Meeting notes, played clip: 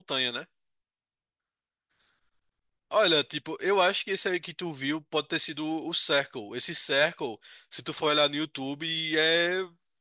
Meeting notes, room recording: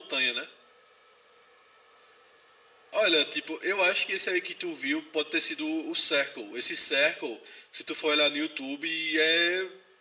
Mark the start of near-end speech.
none

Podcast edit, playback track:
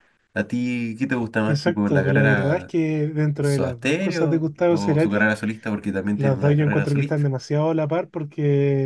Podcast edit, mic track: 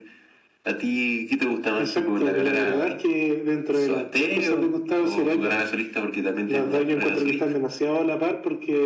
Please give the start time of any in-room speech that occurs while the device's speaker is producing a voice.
none

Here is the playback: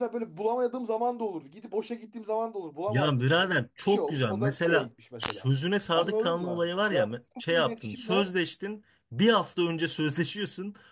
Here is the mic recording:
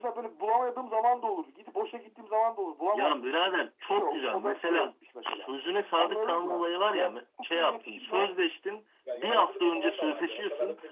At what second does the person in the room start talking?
9 s

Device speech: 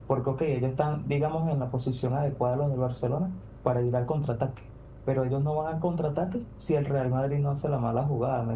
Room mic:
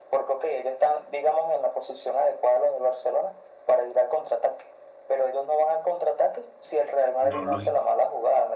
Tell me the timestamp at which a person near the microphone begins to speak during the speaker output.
7 s

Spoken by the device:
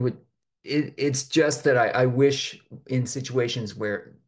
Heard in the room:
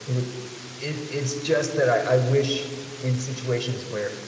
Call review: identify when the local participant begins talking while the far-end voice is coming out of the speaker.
none

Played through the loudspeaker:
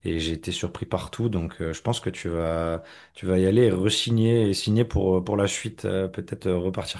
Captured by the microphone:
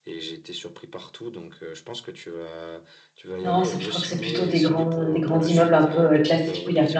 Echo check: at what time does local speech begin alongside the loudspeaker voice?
3 s

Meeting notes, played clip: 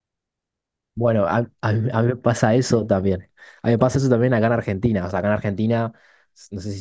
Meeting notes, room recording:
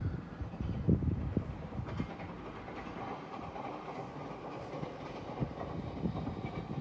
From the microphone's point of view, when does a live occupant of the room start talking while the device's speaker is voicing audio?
none

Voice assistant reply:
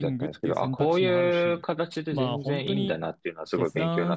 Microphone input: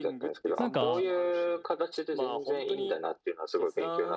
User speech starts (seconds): 1 s

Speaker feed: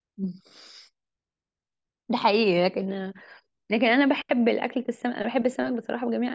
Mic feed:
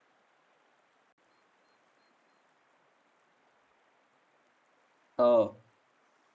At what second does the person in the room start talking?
5 s

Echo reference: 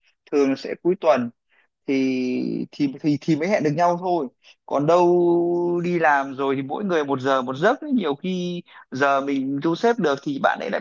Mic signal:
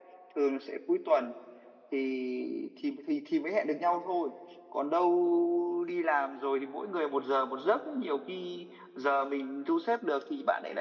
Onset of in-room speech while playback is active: none

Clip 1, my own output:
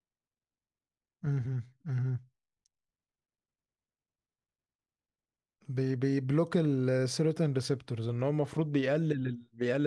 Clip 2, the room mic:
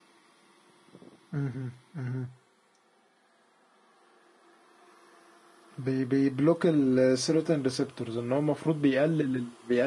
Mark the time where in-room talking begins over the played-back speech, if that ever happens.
none

